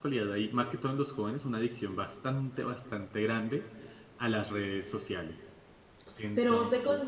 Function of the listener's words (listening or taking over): taking over